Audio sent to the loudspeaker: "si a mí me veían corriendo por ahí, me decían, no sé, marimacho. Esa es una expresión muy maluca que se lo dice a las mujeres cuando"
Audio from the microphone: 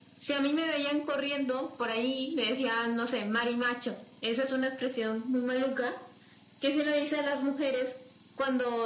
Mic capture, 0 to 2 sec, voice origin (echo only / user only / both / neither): echo only